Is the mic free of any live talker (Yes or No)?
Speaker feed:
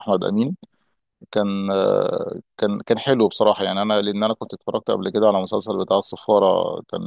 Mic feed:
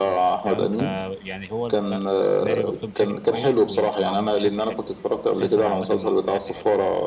No